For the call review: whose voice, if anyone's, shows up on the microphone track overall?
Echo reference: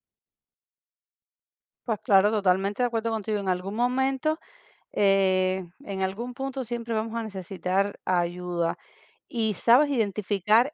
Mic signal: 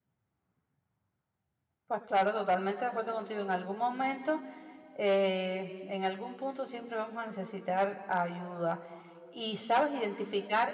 echo only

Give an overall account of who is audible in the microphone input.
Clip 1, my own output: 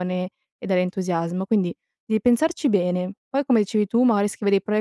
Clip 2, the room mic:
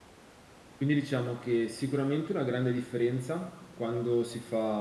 user only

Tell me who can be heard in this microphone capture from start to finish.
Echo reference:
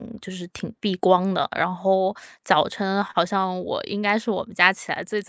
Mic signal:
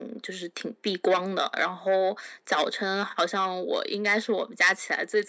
echo only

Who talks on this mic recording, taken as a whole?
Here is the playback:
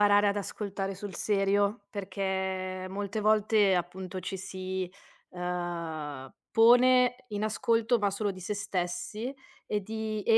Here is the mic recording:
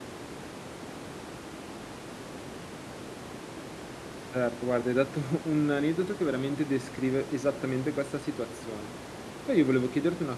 user only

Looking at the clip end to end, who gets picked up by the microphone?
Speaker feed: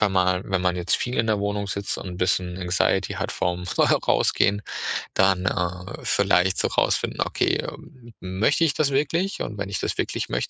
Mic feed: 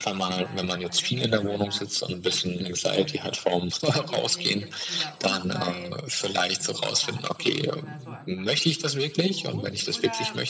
both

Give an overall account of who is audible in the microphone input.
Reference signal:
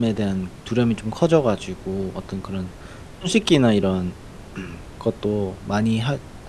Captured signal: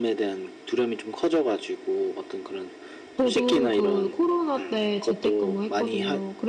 both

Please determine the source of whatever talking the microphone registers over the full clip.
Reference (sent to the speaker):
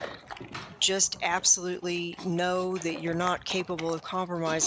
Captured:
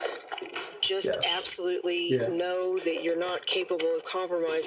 both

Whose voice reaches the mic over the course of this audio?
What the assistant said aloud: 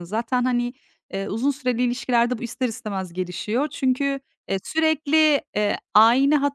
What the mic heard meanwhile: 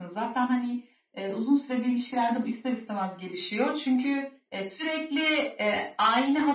echo only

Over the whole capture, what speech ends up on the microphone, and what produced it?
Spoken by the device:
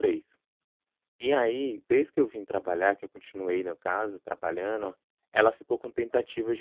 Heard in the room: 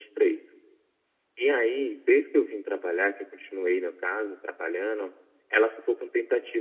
echo only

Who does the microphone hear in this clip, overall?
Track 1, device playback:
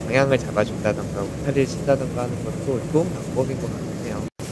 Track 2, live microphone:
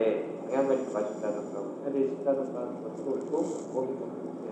echo only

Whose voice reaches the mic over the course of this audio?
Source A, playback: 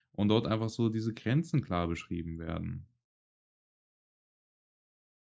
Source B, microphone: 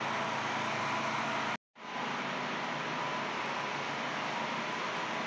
neither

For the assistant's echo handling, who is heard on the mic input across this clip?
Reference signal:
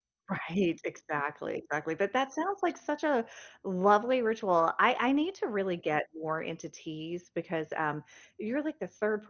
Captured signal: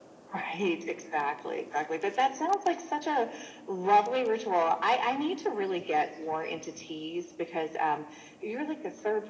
echo only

